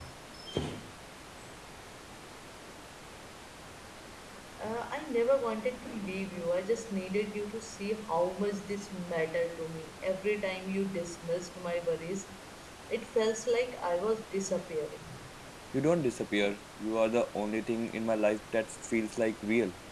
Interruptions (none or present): none